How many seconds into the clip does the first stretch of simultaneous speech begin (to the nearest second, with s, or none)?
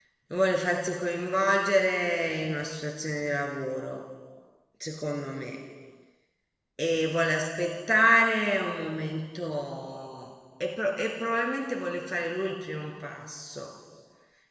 none